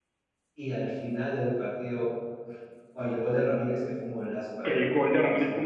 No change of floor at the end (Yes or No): No